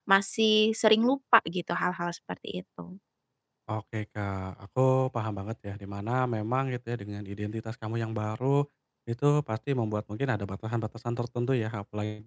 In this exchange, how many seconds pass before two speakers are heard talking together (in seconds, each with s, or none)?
none